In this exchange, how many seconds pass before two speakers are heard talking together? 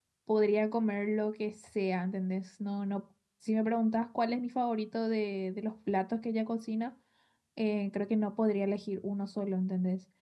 none

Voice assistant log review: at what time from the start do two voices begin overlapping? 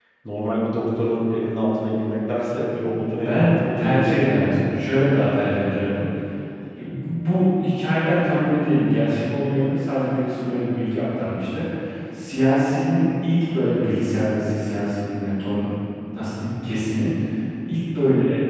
3 s

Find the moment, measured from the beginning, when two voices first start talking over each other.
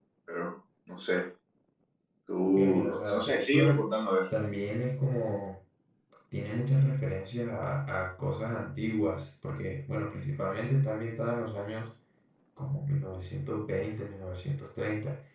3 s

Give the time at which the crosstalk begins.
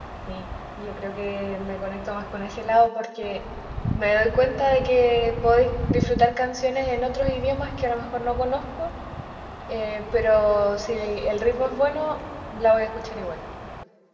none

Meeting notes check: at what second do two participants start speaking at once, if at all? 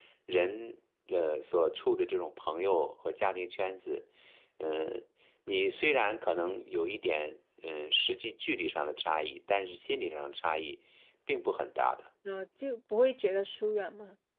none

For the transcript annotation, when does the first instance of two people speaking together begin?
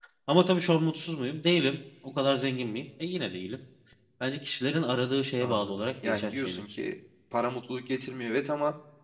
5 s

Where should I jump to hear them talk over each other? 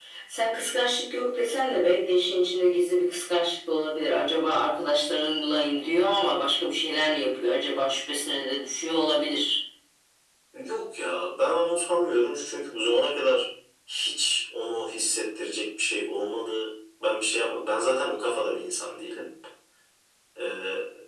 none

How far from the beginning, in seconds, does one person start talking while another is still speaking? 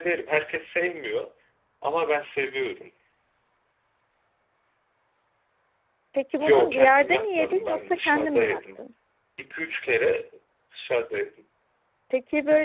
6 s

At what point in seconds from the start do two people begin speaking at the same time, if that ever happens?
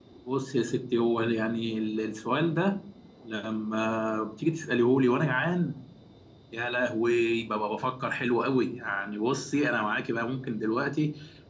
none

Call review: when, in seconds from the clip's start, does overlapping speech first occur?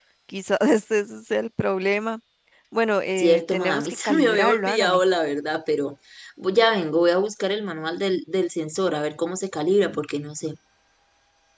3 s

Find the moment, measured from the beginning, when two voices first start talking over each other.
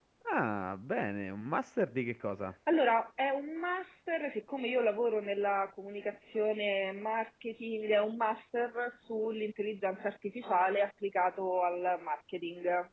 none

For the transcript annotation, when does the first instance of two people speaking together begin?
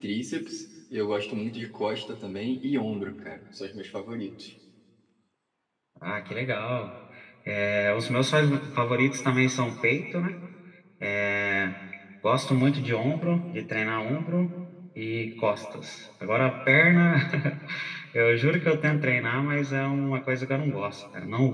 none

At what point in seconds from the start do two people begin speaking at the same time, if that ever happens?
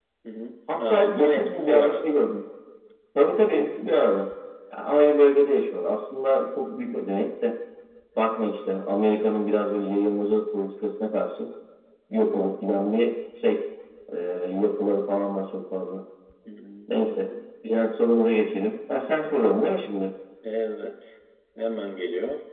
1 s

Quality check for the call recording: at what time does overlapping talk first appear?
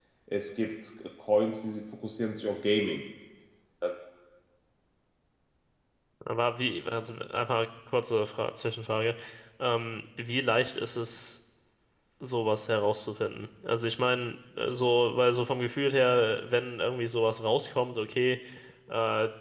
none

